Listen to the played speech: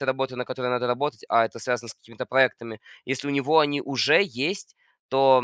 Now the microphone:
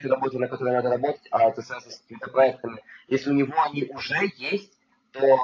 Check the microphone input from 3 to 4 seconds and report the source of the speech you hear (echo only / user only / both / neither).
echo only